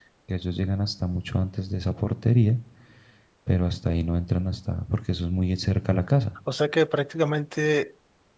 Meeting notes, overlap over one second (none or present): none